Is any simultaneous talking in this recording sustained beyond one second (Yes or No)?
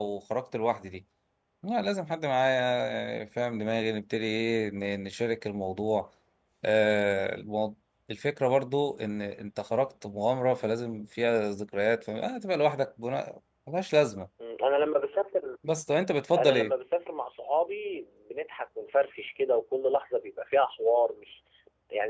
No